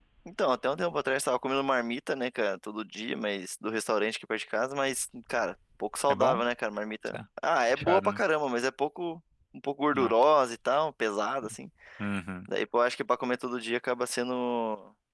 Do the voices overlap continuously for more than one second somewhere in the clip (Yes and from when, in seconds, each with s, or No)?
No